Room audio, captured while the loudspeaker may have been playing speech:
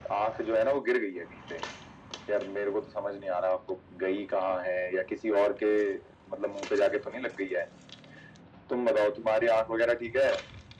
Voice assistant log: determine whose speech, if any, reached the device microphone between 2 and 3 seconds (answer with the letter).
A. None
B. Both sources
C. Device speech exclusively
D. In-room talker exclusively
C